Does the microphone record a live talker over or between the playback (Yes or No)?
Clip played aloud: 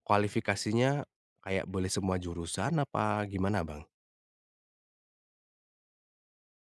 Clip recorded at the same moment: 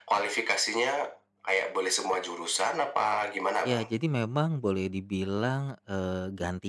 Yes